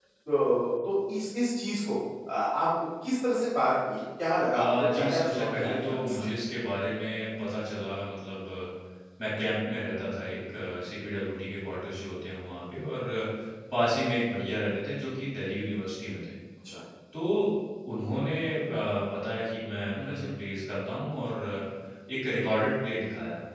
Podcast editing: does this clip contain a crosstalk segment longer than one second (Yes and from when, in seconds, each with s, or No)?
Yes, from 4.5 s